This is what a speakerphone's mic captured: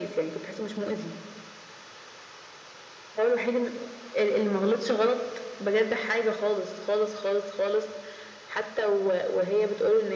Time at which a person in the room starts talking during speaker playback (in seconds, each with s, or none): none